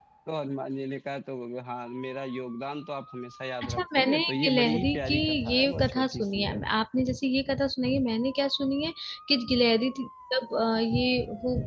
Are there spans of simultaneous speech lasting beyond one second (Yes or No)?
Yes